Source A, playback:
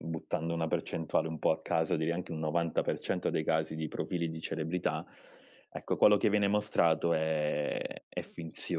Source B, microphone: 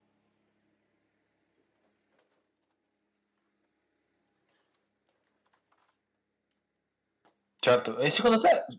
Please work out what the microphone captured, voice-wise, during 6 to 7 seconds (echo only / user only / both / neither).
neither